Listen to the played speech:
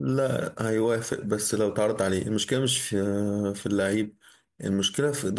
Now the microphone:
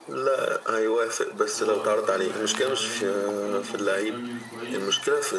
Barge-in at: 1.5 s

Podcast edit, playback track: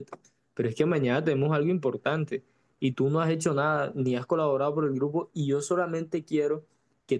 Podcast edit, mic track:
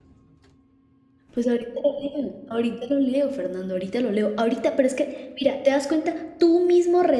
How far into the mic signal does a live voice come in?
1.3 s

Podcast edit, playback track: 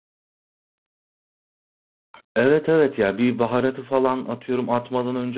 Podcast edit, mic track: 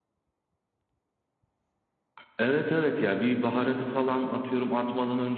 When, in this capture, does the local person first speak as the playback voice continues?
none

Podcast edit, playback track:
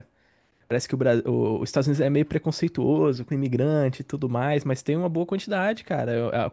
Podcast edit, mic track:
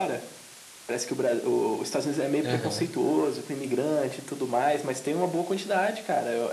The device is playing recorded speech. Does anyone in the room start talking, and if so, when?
2.4 s

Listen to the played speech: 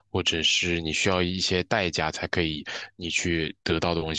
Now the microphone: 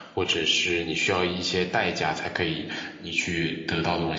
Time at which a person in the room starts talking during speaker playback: none

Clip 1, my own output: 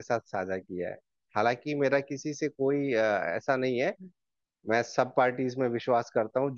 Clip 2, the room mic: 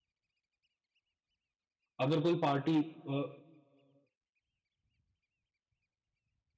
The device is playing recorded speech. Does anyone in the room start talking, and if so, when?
2.0 s

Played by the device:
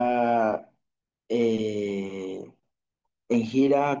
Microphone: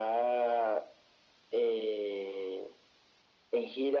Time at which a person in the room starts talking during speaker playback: none

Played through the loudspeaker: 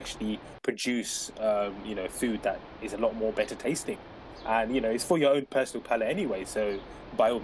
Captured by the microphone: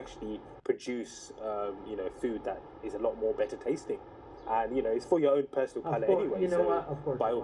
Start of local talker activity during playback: 5.8 s

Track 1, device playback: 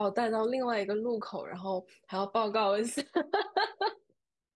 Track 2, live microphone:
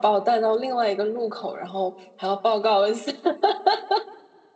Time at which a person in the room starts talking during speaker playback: none

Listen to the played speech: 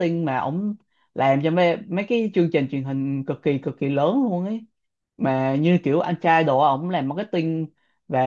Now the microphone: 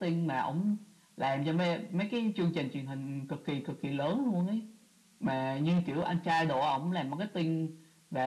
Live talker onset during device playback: none

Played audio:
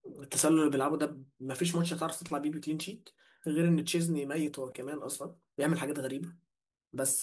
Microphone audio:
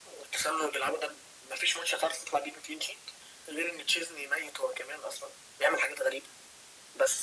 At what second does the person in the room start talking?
none

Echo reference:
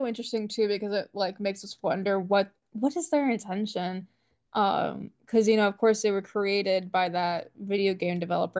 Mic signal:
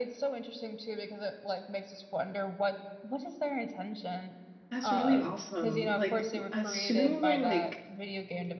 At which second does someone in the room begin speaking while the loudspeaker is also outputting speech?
4.7 s

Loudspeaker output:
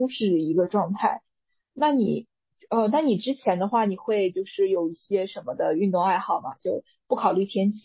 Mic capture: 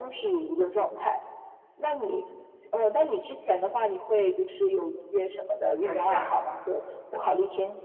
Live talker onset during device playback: 5.8 s

